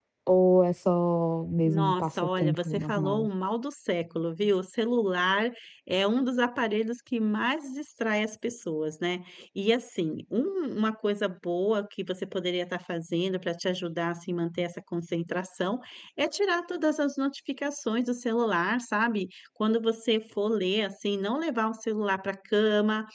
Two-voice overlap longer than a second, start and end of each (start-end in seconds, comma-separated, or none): 1.7-3.3